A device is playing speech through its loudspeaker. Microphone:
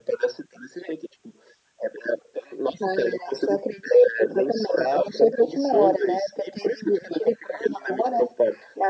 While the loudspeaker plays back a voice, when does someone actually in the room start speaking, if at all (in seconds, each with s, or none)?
none